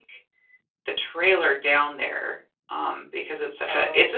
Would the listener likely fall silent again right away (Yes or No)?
No